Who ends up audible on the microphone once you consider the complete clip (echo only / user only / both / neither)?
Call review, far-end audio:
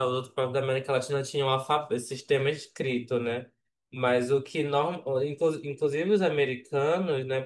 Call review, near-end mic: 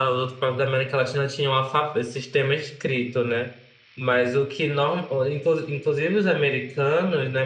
echo only